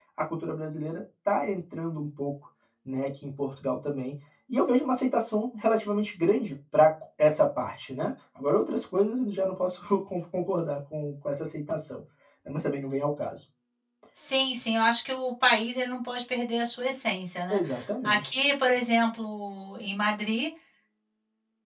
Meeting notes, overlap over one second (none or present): none